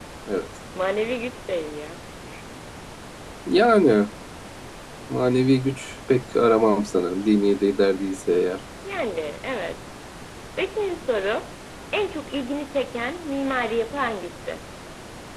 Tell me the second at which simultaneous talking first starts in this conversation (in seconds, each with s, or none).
none